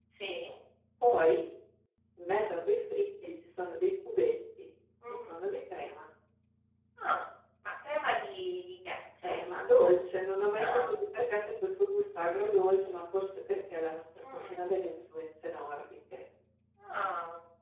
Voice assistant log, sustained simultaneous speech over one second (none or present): none